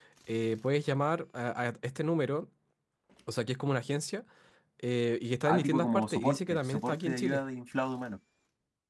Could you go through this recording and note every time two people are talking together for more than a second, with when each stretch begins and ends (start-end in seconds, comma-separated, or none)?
5.4-7.4